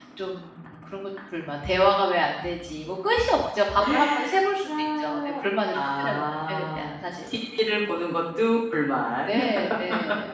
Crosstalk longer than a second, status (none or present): present